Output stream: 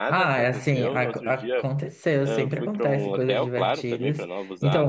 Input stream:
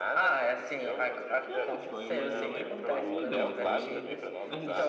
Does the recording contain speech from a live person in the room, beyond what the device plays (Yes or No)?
Yes